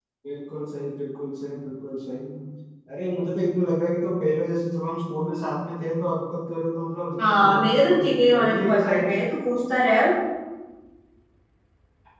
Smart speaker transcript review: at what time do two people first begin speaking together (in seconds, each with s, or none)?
7.2 s